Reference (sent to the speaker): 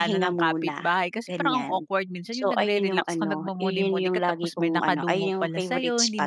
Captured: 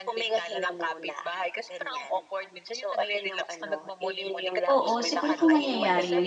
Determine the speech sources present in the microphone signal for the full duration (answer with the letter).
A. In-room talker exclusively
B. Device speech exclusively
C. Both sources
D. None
C